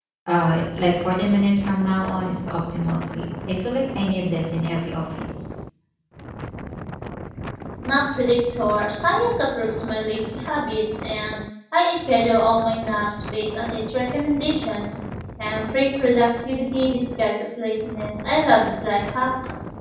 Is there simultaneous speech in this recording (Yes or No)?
No